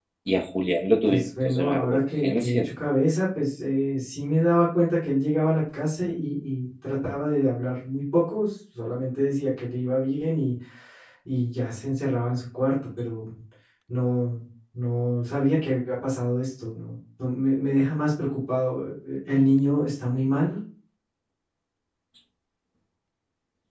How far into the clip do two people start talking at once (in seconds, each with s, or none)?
1.1 s